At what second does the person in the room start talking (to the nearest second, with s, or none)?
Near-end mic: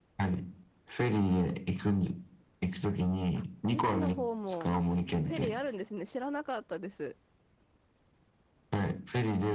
3 s